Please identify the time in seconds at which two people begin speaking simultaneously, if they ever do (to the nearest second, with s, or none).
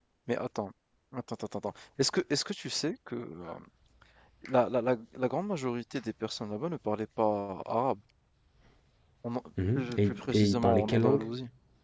10 s